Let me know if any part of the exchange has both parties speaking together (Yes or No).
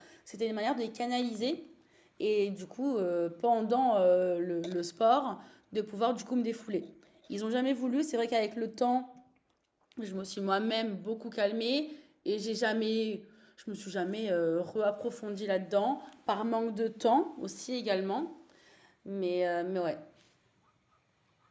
No